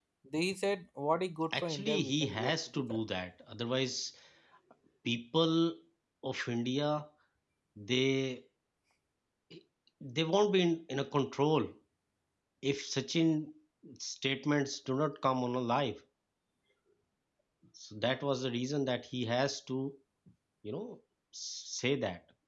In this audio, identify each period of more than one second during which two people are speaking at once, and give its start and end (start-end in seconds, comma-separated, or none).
1.5-3.0